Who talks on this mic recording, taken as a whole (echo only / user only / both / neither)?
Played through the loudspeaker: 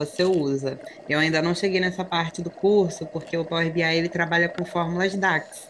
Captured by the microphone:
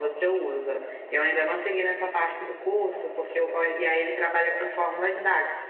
echo only